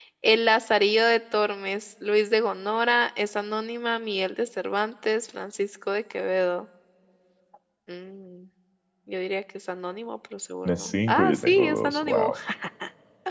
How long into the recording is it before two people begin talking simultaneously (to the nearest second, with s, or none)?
11 s